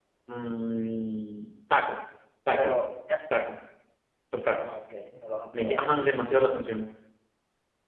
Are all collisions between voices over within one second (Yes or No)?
Yes